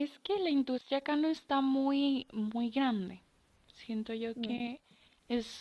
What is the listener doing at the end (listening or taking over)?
listening